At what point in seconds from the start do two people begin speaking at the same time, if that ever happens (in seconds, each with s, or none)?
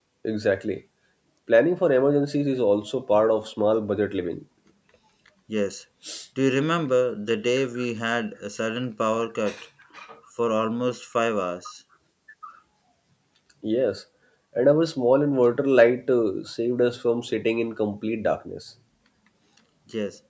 none